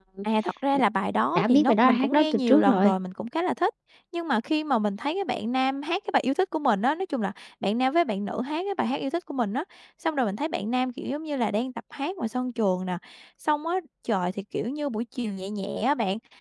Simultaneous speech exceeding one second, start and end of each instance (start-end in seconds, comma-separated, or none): 1.4-2.9